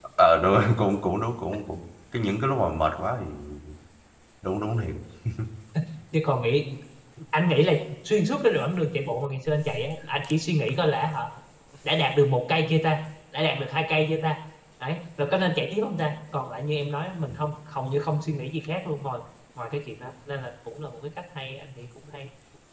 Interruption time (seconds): none

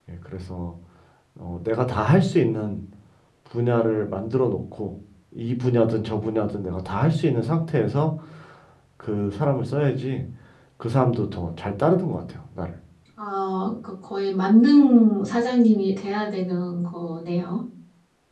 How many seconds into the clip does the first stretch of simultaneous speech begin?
none

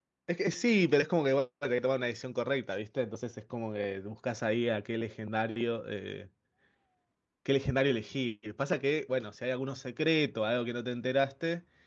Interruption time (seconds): none

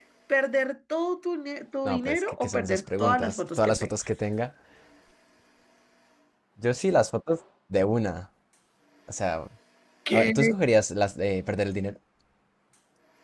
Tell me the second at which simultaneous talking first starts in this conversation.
1.9 s

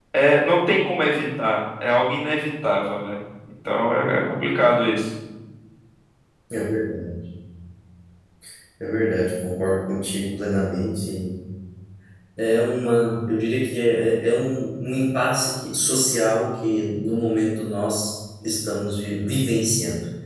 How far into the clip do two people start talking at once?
none

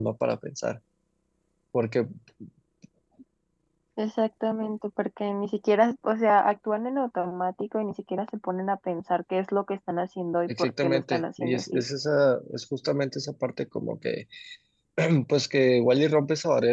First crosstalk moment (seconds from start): 10.5 s

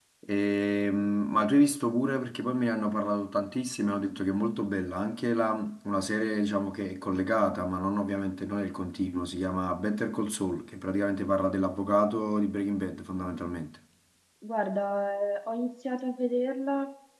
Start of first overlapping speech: none

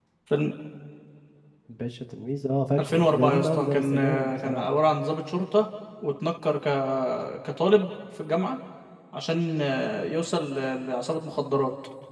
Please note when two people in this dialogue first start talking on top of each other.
2.8 s

